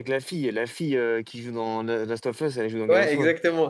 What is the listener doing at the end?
taking over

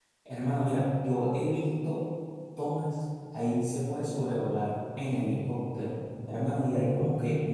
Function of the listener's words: listening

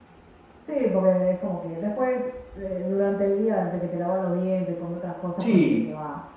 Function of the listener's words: taking over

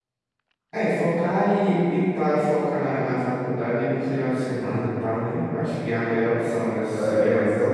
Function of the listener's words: taking over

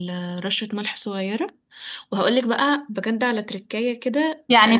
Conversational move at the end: taking over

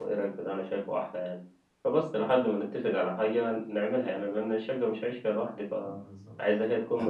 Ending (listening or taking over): taking over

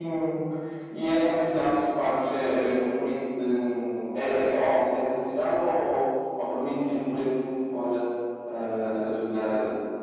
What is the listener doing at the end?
taking over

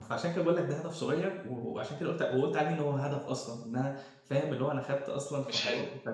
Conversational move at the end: listening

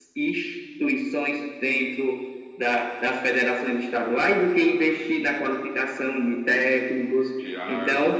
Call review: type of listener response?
listening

